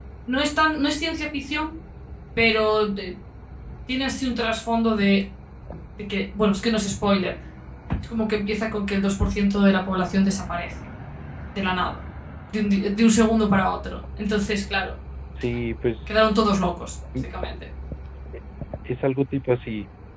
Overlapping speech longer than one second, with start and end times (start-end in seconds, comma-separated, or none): none